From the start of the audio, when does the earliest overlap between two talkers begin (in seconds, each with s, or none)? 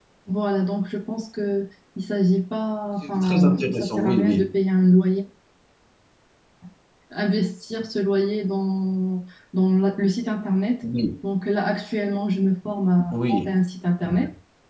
3.1 s